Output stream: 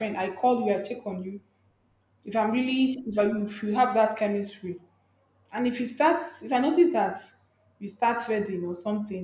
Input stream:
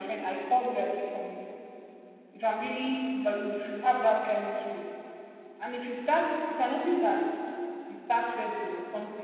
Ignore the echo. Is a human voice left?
No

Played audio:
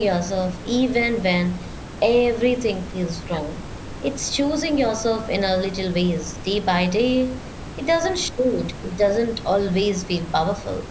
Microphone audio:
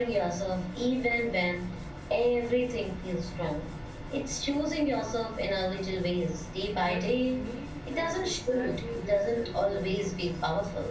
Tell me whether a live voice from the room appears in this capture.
Yes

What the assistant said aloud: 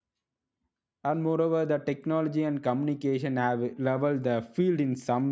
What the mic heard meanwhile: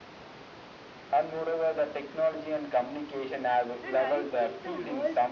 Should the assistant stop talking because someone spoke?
Yes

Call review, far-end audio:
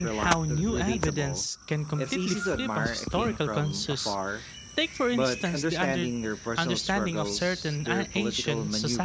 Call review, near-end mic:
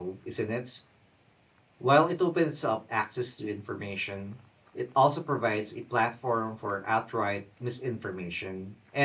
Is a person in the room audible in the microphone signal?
Yes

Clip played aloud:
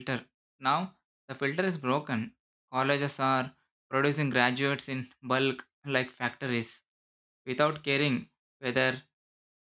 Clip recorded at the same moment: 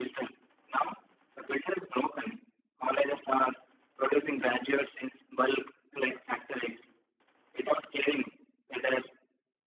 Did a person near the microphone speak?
No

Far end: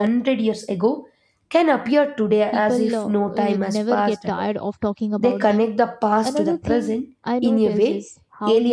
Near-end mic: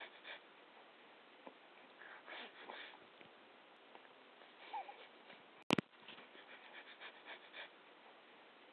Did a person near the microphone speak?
No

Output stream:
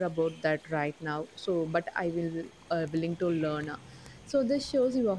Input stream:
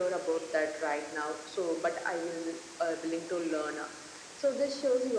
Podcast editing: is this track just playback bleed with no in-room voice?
Yes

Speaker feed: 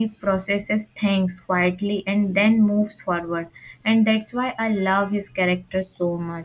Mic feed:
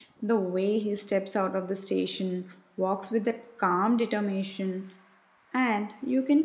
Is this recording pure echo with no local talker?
No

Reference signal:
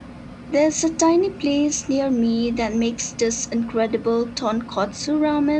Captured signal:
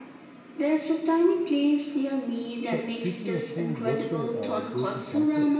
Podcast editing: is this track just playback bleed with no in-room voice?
No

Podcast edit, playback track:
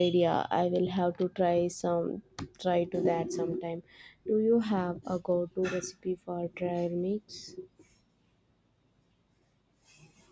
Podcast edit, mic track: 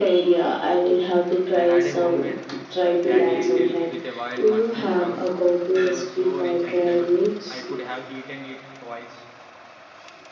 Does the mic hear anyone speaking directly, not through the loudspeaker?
Yes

